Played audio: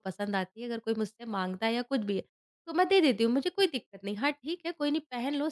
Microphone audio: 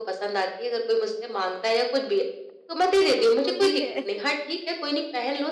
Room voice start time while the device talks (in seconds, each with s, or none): 3.1 s